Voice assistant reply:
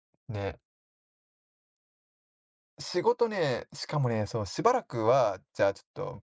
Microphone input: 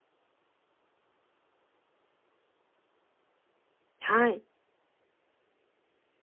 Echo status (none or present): none